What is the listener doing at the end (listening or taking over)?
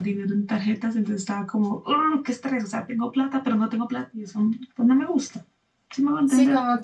taking over